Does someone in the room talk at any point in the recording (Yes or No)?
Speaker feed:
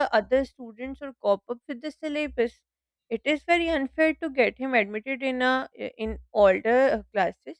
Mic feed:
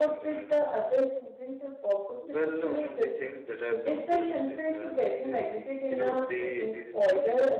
Yes